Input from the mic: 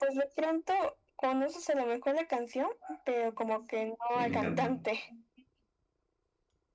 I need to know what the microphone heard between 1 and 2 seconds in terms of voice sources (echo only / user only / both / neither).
echo only